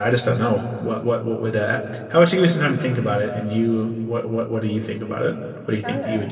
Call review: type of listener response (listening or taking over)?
taking over